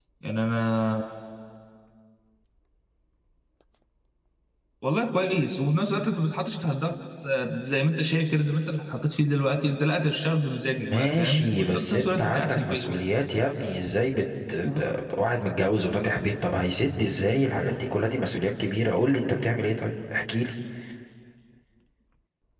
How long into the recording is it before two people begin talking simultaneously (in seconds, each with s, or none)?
10.8 s